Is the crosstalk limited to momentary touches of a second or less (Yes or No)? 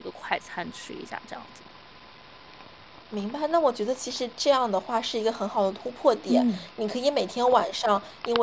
Yes